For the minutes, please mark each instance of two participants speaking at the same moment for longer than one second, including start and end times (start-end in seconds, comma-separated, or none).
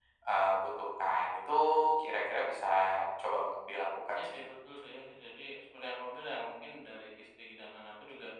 none